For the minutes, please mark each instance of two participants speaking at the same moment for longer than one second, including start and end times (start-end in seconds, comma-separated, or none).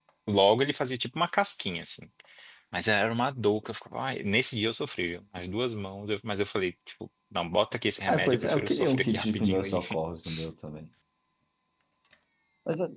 8.1-9.8